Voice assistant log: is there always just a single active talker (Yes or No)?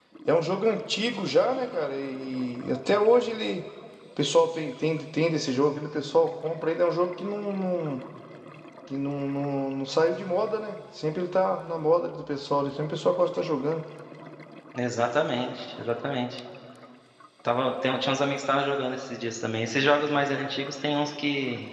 Yes